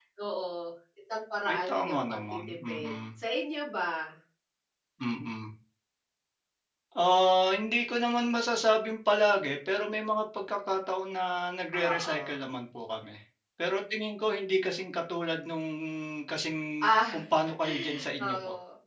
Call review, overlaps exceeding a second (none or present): present